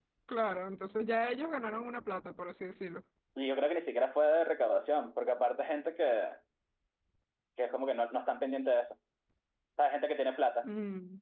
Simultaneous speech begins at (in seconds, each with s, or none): none